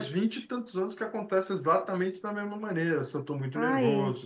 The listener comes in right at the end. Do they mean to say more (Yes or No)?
No